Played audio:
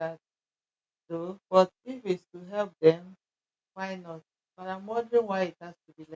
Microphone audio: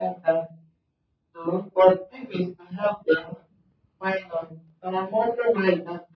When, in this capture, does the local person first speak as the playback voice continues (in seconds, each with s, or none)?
none